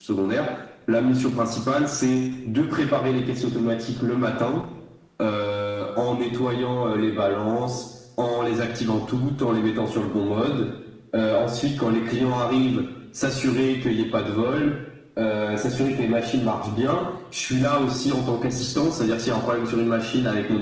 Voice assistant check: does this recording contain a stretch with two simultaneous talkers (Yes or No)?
No